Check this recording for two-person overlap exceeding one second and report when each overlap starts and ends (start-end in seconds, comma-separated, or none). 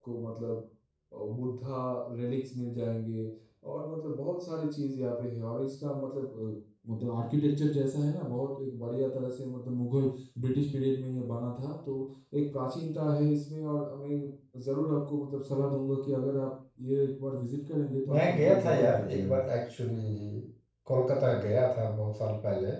18.1-19.4